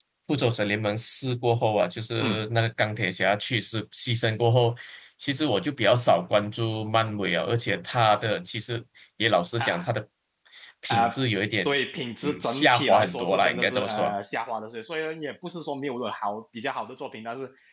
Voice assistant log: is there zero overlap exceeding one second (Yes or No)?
No